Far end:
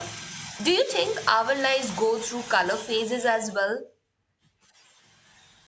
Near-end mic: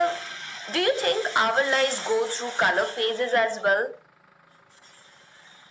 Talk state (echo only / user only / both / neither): echo only